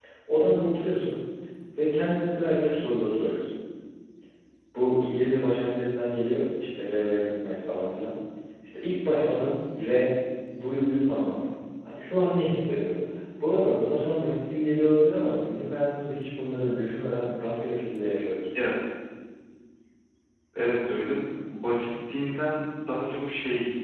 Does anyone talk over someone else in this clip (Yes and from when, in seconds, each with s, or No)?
No